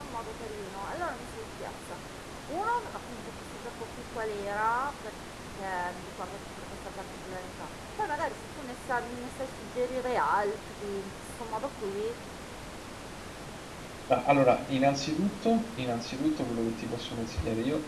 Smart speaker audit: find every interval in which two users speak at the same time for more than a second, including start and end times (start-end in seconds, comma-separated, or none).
none